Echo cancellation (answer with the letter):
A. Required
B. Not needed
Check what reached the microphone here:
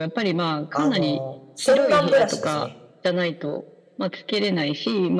A